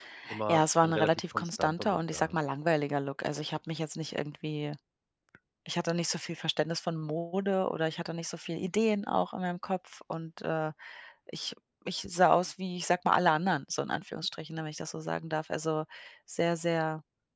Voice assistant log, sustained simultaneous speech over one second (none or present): present